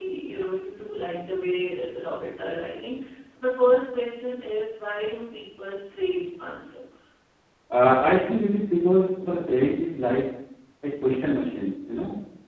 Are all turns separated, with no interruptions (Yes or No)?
Yes